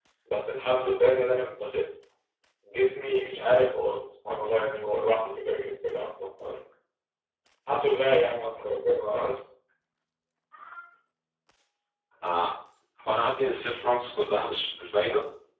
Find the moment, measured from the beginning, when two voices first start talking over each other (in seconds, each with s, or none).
none